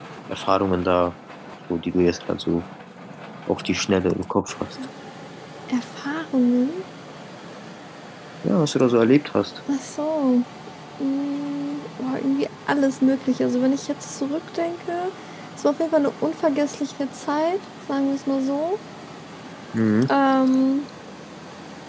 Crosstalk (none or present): none